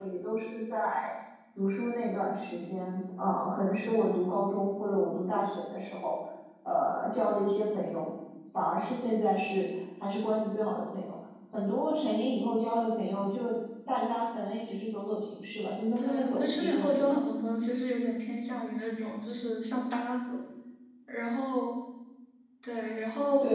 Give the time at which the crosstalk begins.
16 s

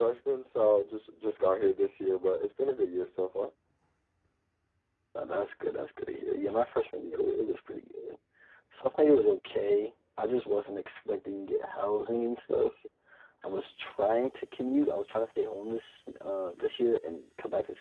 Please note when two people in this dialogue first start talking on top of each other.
none

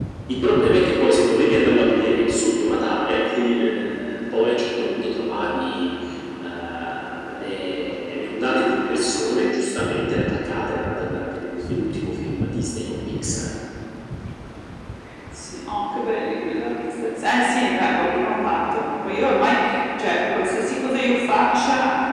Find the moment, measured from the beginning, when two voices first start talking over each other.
none

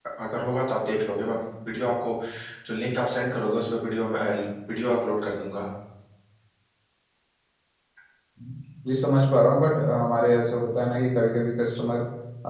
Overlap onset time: none

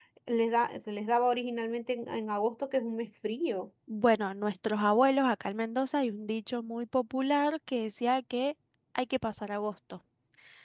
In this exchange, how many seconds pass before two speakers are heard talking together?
none

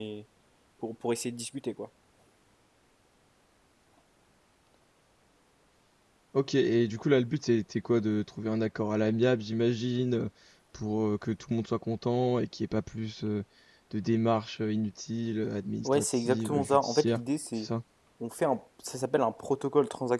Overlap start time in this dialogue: 16 s

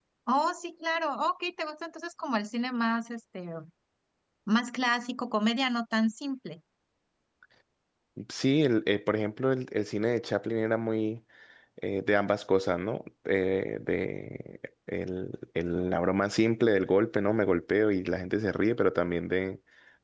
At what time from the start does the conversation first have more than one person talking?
none

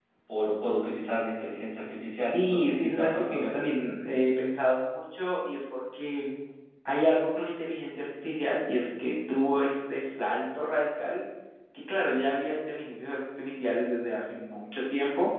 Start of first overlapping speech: 2 s

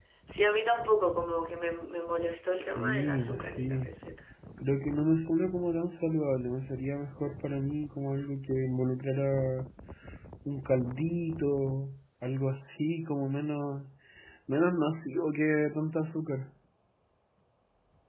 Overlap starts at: 2 s

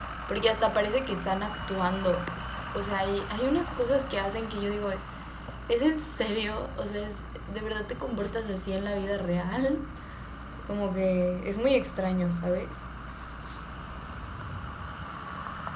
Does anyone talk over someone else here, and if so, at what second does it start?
none

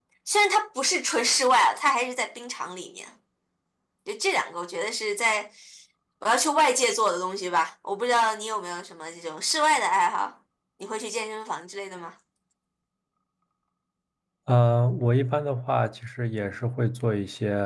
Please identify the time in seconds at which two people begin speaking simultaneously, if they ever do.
none

